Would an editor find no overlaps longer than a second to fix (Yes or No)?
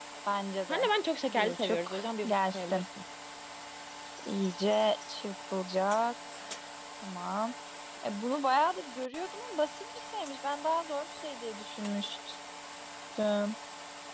No